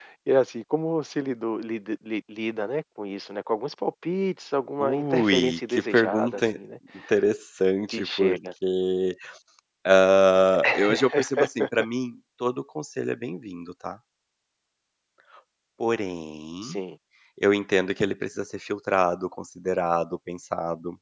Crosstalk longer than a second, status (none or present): present